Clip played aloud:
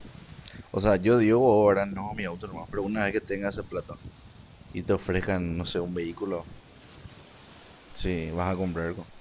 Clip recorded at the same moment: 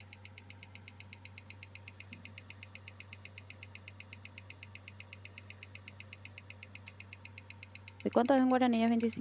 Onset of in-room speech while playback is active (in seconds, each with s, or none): 8.0 s